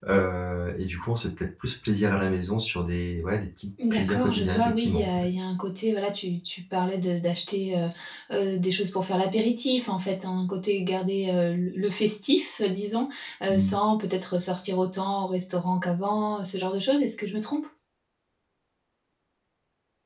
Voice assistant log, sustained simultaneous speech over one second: present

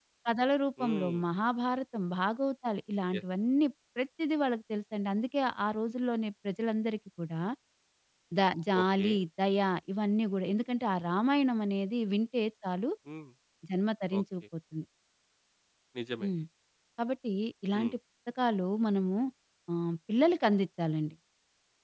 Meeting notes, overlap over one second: none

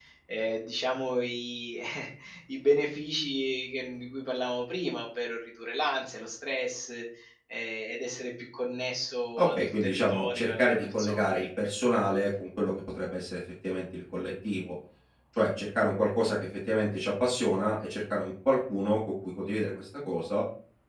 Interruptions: present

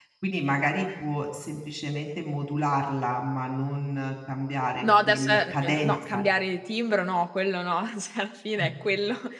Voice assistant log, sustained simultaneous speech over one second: present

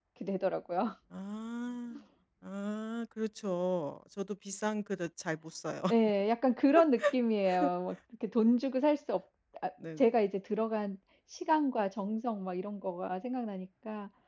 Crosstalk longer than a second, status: none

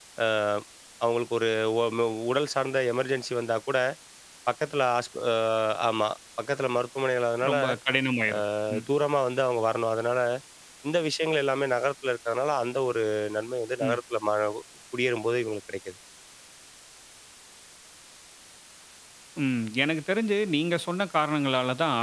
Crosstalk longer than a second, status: none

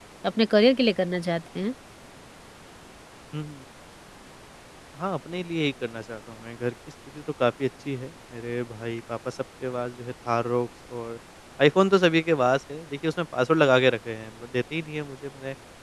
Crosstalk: none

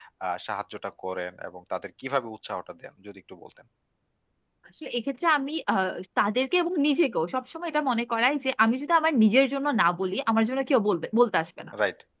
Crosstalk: none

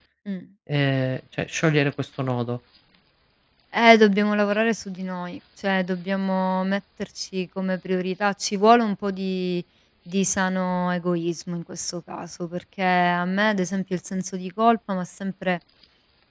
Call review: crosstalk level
none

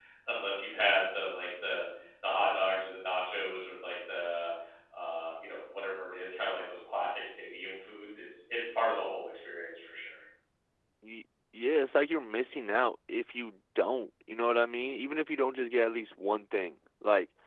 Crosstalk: none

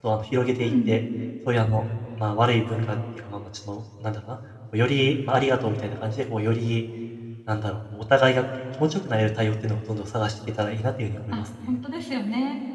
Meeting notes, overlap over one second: none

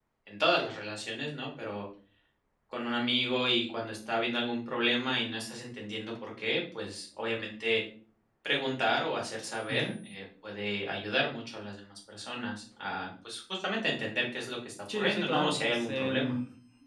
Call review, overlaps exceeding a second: present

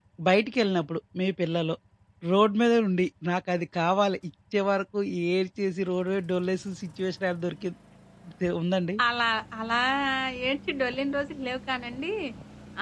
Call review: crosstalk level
none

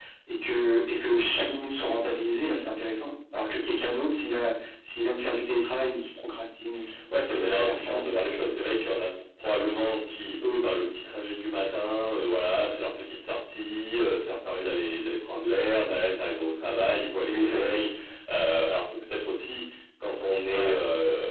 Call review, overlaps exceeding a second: present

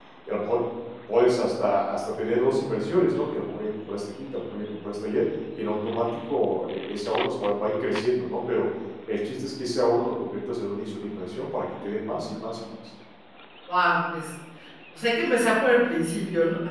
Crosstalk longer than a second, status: none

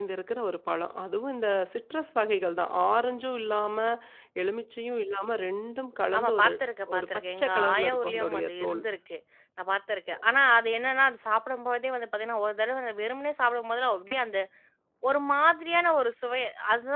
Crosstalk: present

